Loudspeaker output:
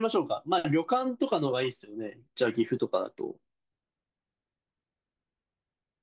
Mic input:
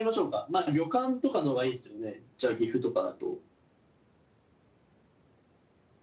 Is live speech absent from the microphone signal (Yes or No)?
Yes